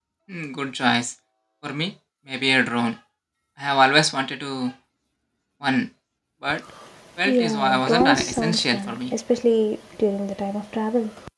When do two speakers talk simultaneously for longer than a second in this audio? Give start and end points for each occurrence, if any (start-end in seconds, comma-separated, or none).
7.2-9.1